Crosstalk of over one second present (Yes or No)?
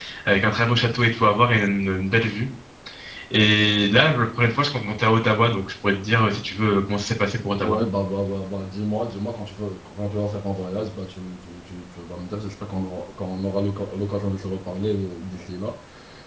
No